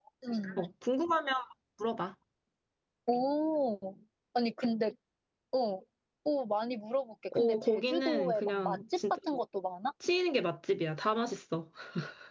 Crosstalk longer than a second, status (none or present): present